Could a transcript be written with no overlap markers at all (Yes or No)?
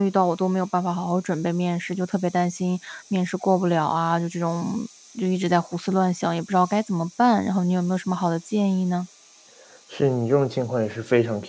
Yes